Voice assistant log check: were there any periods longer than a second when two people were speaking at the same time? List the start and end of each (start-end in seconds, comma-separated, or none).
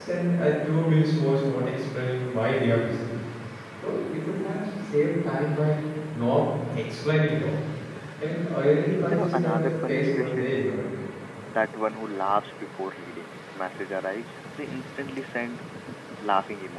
9.1-10.6